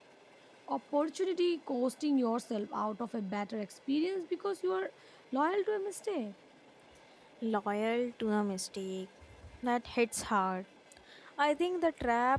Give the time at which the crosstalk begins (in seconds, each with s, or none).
none